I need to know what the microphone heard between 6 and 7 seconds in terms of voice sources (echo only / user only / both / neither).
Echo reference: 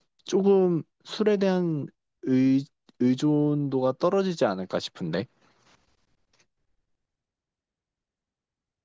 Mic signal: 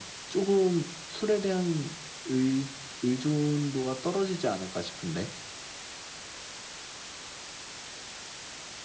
neither